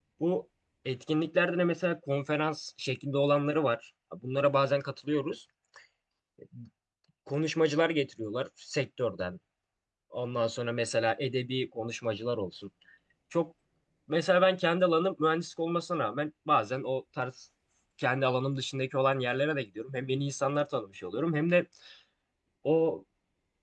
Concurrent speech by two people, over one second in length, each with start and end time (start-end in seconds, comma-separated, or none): none